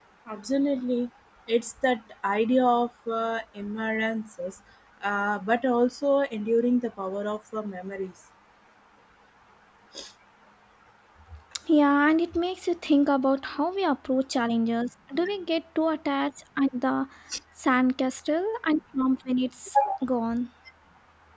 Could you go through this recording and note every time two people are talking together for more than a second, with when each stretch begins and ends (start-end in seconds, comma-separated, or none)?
none